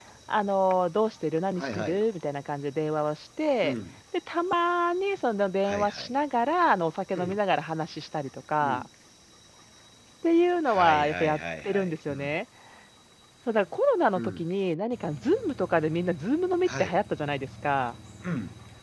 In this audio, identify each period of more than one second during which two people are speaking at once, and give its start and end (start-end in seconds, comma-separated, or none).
10.6-12.4